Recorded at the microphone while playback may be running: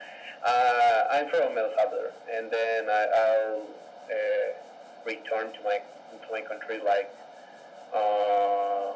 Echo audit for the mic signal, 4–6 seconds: echo only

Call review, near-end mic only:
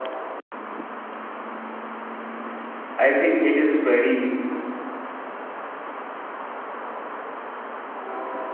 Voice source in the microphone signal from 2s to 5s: user only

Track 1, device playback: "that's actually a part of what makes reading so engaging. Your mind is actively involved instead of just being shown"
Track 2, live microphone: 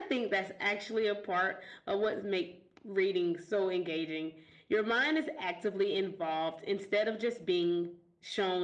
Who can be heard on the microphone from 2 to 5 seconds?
echo only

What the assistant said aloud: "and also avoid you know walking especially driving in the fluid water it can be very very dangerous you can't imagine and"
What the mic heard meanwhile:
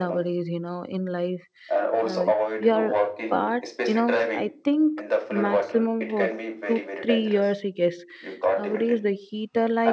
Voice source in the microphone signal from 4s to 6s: both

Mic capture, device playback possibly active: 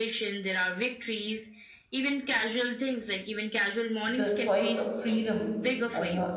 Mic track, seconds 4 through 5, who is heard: both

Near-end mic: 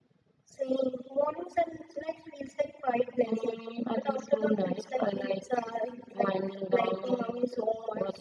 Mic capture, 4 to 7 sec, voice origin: echo only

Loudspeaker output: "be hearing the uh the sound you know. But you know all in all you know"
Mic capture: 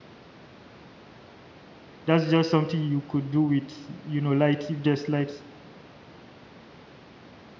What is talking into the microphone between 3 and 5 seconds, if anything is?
user only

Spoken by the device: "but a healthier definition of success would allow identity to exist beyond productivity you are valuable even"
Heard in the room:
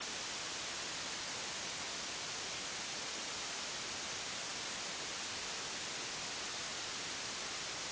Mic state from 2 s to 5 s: neither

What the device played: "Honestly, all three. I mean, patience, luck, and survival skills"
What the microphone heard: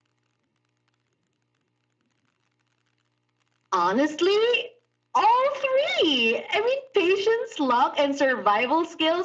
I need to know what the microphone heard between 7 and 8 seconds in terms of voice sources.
echo only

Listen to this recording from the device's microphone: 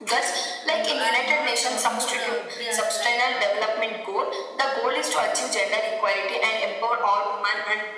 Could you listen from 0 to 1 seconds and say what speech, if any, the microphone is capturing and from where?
both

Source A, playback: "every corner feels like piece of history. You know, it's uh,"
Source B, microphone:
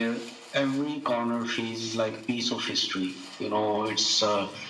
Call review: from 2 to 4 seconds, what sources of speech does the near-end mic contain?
echo only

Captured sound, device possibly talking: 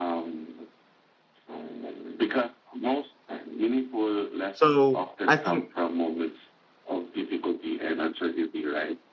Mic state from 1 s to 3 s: echo only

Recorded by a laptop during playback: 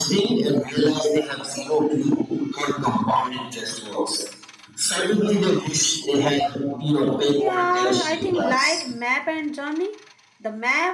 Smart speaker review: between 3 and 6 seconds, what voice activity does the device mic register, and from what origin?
echo only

